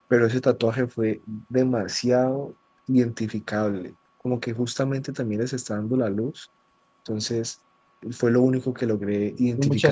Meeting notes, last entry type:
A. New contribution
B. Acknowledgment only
A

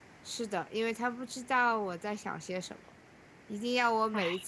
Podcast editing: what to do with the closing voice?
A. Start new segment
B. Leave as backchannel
B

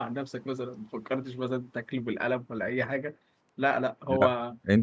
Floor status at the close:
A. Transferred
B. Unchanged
A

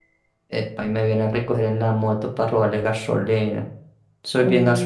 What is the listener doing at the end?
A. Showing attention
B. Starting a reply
B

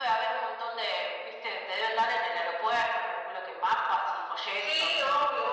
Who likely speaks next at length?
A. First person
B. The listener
B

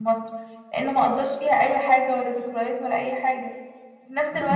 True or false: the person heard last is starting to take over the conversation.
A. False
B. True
A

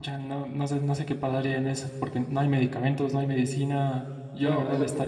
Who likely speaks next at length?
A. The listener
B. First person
B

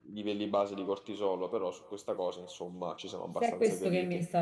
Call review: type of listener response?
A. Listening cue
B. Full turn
B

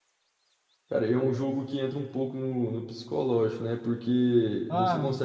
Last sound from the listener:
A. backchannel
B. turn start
A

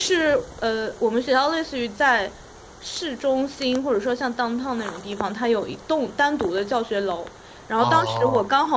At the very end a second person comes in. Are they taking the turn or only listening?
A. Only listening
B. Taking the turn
A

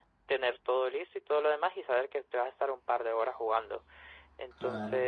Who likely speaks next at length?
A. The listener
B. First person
B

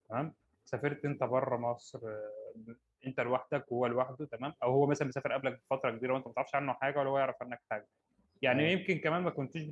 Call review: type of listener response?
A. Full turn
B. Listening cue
B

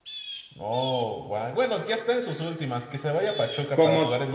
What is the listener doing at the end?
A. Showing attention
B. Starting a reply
B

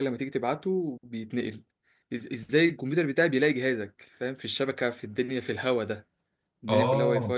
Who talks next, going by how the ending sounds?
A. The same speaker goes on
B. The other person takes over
A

